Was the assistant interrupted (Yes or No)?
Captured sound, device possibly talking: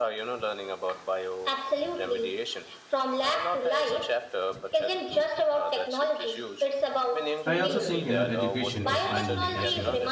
Yes